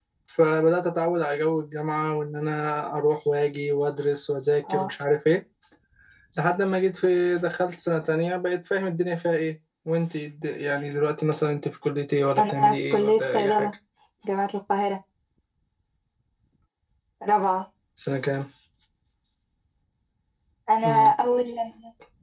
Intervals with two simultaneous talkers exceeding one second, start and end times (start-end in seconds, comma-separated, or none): 12.4-13.7